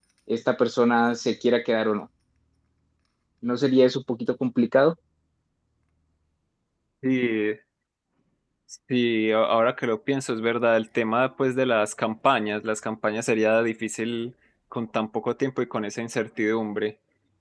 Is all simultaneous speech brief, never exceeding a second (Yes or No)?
Yes